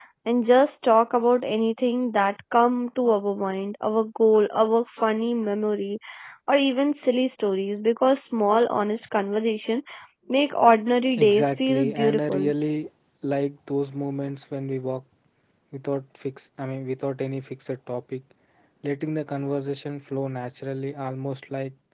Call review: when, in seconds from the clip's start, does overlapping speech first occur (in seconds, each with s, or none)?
11.1 s